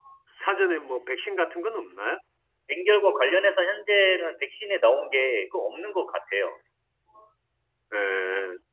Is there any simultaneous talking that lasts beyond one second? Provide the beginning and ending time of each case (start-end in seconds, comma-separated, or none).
none